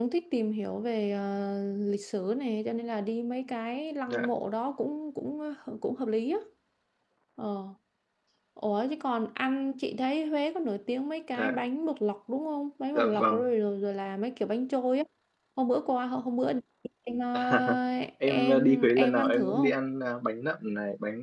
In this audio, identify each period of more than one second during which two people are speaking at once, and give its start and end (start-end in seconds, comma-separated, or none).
18.2-19.8